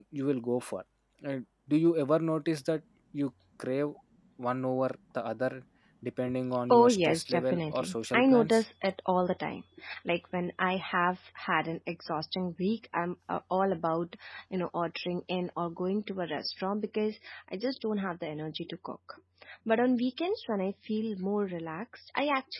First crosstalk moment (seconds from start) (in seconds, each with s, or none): 6.7 s